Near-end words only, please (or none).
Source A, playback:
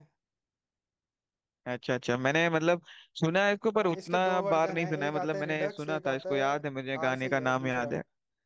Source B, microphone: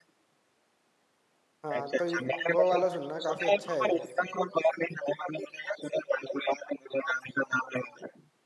हाँ तो ये- वो वाला सुनना काफी अच्छा है ये